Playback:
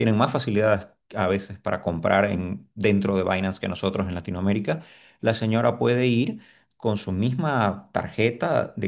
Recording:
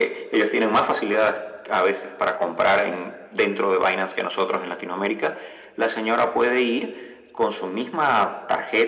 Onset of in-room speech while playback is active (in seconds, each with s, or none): none